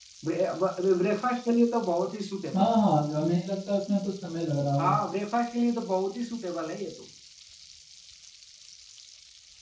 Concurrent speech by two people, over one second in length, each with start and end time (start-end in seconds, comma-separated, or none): none